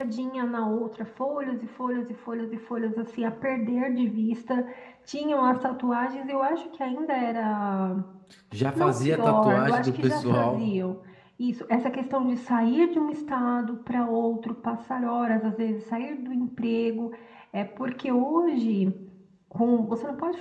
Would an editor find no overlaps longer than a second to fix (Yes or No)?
No